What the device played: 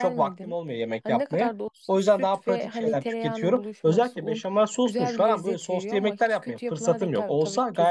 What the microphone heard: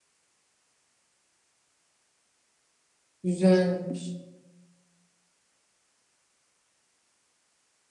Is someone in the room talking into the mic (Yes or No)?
Yes